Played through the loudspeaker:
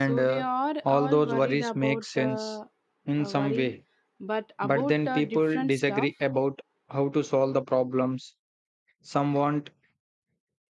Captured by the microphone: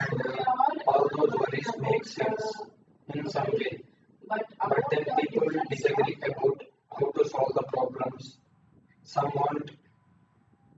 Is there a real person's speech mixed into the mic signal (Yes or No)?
No